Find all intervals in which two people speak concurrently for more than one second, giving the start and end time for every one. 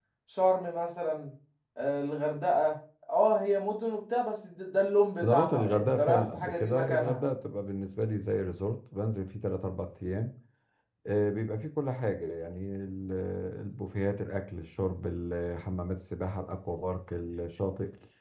5.2-7.2

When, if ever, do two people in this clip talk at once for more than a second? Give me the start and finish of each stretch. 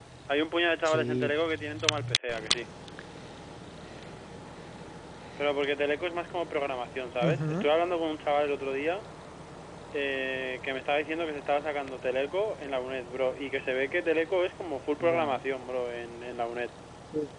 none

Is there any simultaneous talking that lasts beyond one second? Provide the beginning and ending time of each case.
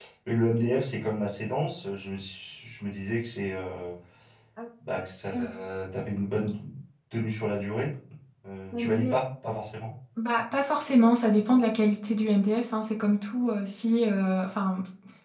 none

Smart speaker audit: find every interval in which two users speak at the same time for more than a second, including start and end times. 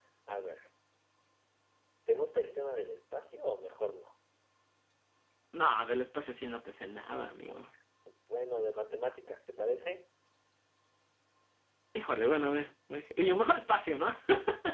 none

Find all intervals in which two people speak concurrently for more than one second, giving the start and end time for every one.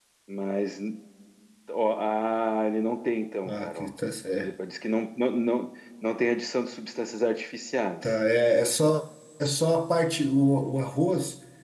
none

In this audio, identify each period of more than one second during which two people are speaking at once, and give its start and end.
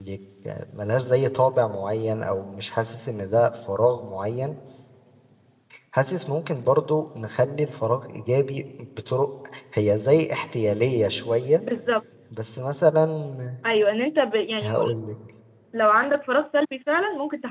none

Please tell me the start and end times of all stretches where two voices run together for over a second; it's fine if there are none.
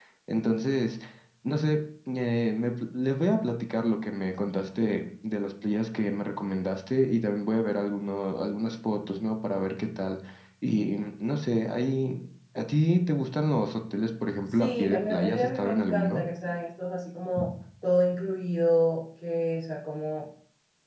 14.5-16.2

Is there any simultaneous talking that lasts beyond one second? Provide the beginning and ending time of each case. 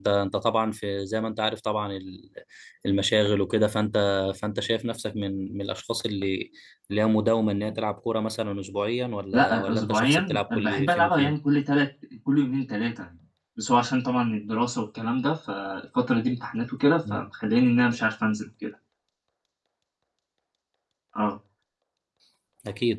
9.3-11.4

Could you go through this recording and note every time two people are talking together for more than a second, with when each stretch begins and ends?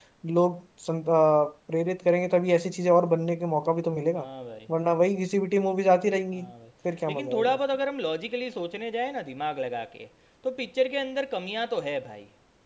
none

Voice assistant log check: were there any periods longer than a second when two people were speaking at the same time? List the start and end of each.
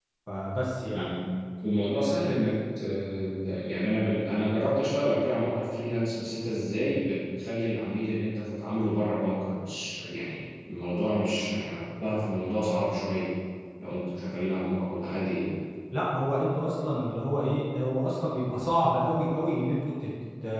none

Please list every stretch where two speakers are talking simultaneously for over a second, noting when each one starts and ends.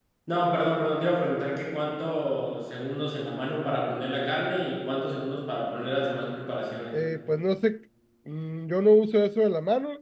none

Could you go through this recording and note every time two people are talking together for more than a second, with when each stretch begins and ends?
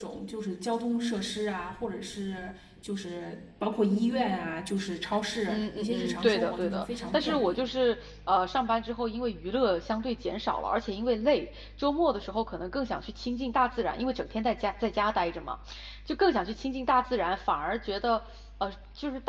5.5-7.6

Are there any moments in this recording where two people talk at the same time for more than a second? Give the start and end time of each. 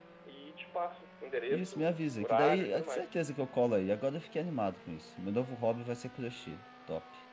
1.5-3.1

